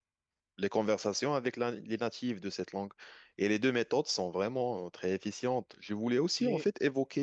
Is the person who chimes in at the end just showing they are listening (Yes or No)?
Yes